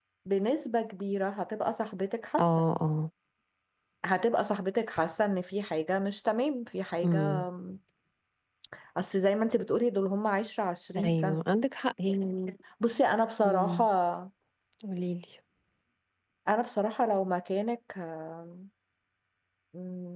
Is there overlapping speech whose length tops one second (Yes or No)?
No